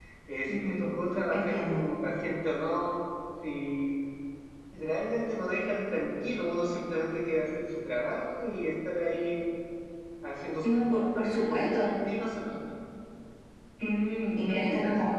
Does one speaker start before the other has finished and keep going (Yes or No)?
Yes